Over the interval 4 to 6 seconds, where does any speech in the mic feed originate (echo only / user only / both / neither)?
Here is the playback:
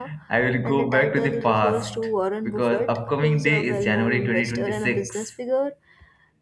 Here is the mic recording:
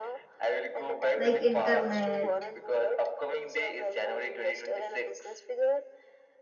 echo only